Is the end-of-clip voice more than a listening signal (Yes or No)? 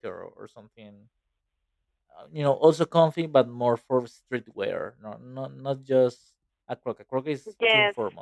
Yes